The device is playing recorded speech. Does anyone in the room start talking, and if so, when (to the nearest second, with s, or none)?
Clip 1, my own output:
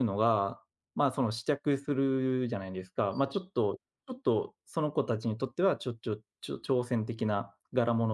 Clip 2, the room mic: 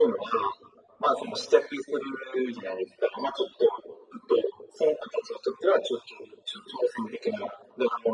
none